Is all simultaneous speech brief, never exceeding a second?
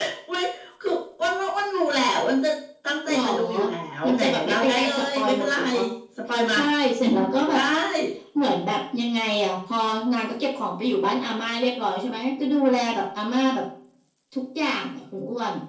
No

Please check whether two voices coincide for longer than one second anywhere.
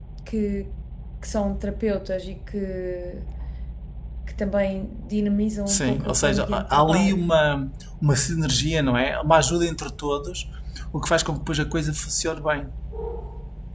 Yes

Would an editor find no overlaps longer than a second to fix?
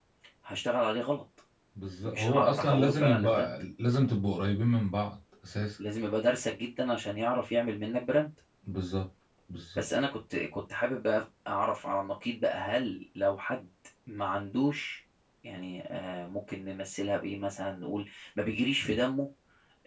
No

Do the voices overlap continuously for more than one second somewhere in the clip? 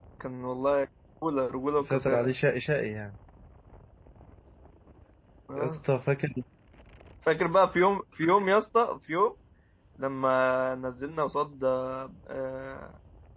No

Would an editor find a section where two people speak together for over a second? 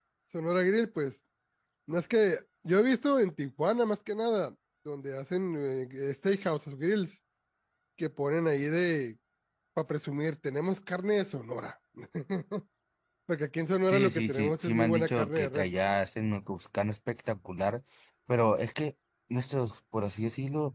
Yes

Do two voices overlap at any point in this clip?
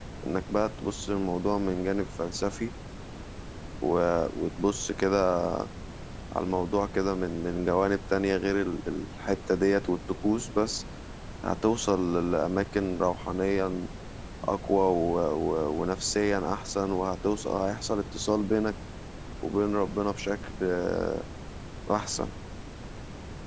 No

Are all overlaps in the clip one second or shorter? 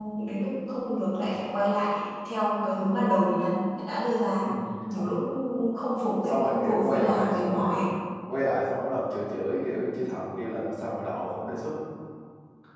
No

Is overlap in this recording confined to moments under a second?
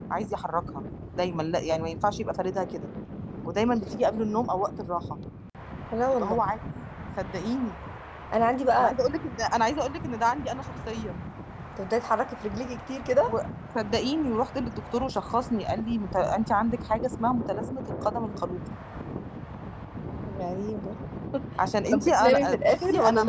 No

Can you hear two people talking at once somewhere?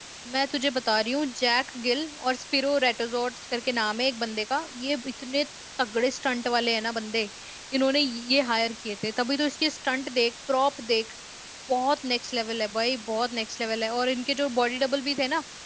No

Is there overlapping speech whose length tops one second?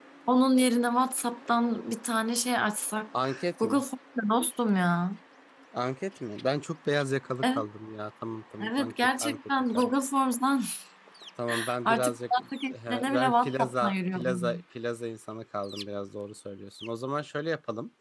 Yes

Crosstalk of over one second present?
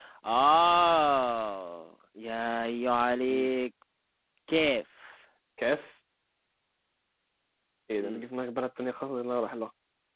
No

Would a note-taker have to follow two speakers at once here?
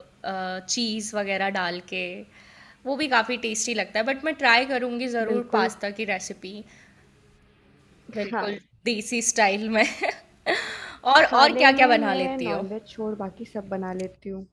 Yes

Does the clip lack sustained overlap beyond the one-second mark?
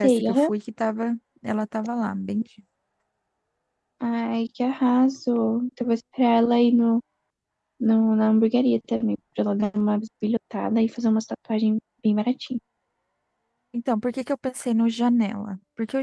Yes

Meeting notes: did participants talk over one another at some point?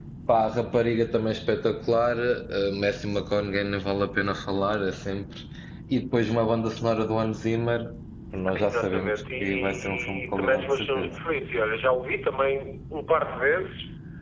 Yes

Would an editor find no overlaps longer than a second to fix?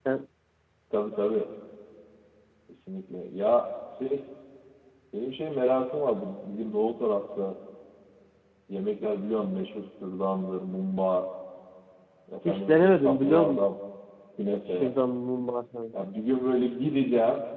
No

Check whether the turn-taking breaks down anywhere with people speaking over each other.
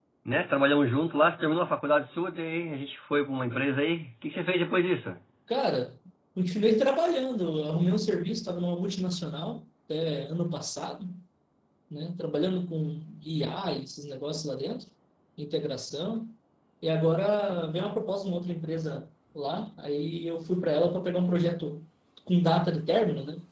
No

